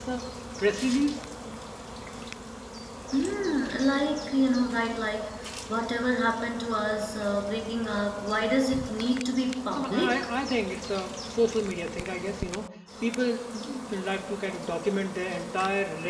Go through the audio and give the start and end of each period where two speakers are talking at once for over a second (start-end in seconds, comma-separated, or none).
none